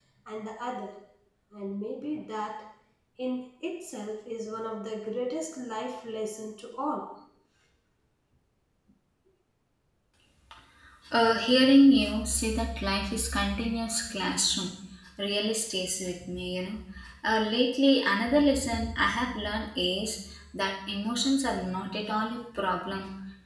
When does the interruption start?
none

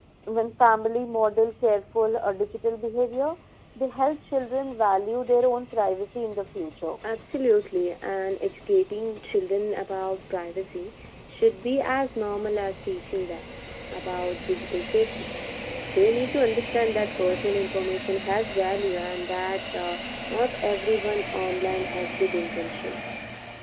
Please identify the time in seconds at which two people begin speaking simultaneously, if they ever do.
none

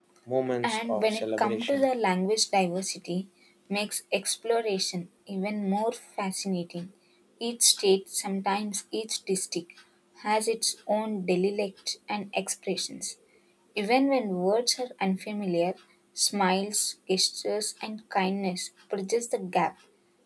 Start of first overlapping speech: 0.6 s

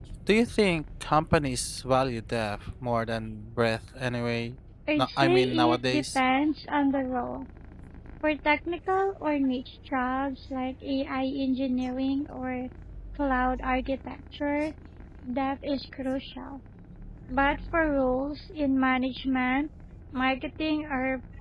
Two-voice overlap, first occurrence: 5.0 s

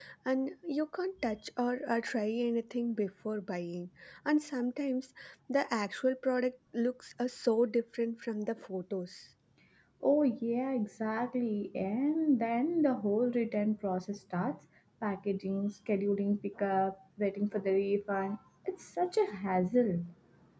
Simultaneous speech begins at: none

